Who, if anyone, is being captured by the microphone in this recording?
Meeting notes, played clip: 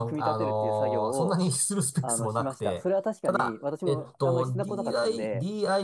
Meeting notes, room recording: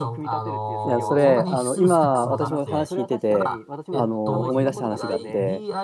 both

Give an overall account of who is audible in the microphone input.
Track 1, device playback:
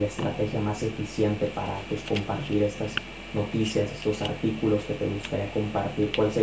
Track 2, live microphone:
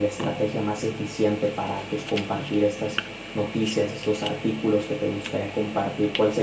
echo only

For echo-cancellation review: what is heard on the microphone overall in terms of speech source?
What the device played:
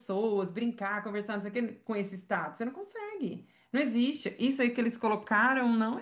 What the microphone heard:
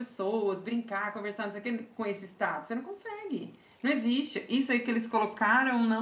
echo only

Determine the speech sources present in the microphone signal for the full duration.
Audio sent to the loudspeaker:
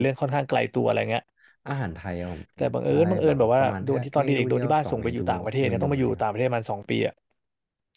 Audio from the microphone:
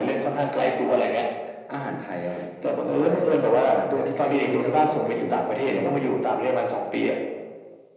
echo only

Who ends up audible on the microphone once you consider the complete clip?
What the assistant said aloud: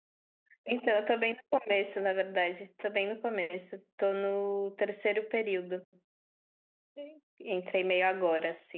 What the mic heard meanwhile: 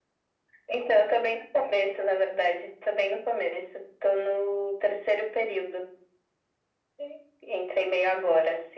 echo only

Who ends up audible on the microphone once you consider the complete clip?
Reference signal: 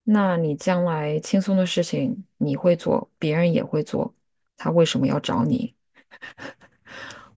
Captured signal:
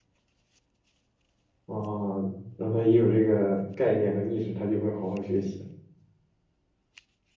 user only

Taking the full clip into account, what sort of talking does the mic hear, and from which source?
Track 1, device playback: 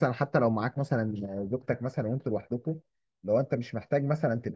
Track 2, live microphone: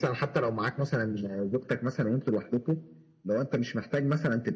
echo only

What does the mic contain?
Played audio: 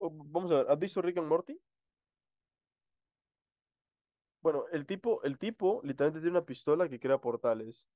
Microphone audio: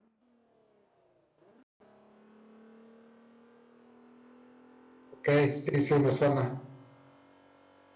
user only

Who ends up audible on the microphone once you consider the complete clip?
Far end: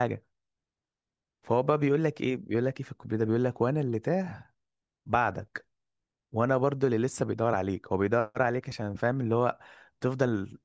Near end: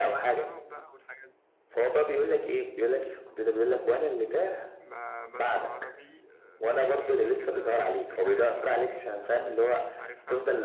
both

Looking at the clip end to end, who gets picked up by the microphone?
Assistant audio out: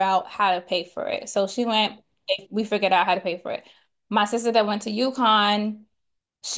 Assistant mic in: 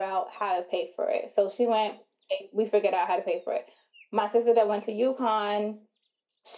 echo only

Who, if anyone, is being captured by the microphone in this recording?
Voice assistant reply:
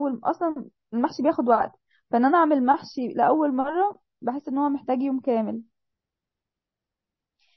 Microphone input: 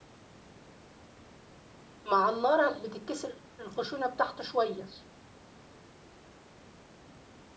user only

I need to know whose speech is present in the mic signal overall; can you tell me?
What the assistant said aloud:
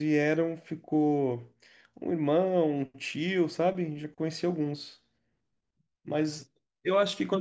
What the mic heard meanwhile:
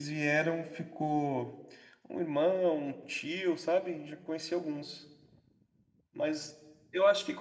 echo only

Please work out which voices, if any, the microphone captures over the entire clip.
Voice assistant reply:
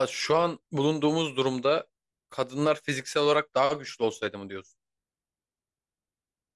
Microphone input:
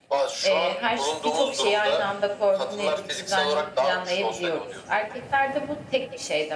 both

